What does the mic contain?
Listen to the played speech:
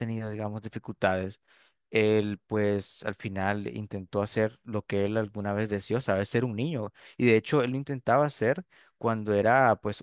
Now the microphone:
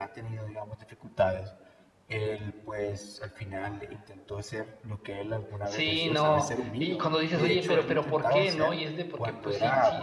both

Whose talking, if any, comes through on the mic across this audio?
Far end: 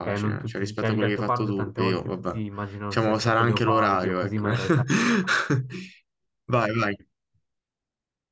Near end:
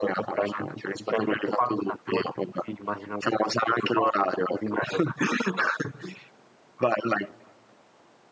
echo only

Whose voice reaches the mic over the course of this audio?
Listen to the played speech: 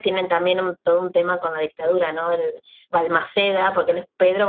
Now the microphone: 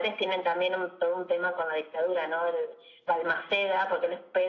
echo only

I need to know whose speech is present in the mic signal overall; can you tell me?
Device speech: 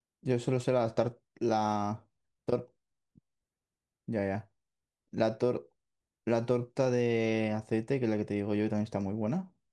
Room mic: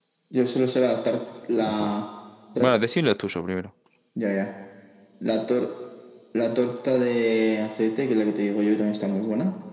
both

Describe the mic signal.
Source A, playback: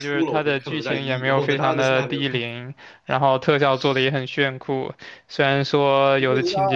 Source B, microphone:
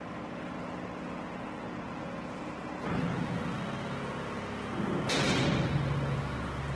neither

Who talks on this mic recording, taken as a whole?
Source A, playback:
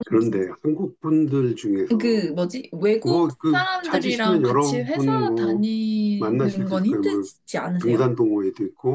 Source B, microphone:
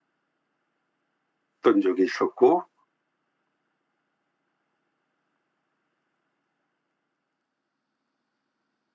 user only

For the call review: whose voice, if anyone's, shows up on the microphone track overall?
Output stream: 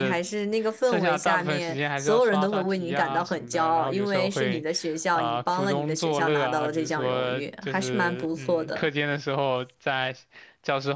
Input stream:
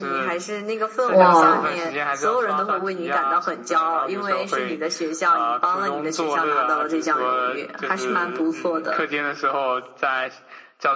both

